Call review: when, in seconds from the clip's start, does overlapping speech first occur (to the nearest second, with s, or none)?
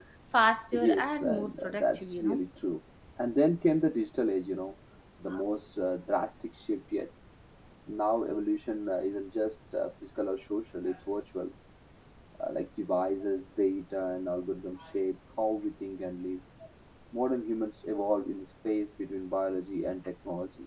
1 s